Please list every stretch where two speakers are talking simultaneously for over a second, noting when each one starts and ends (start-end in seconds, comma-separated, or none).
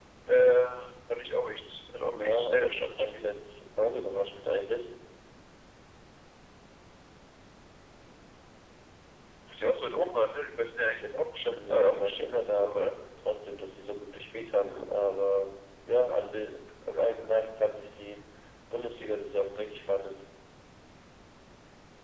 2.0-3.3, 11.5-12.9